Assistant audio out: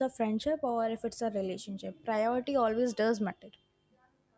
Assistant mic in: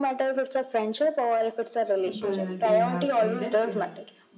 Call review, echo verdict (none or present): present